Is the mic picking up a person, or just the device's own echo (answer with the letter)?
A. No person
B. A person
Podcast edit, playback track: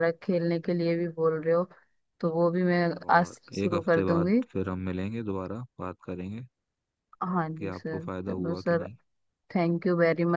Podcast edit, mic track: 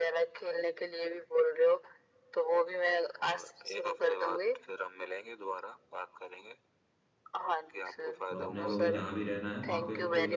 B